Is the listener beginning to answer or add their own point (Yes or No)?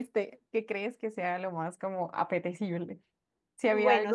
Yes